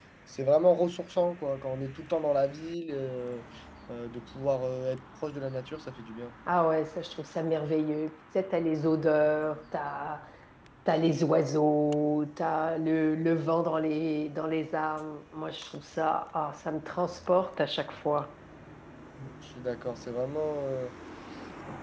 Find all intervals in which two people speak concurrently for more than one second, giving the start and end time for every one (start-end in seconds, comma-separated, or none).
none